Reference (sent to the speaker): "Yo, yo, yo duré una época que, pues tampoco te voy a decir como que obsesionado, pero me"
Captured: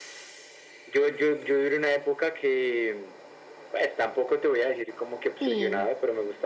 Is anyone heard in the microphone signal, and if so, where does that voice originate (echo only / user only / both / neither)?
both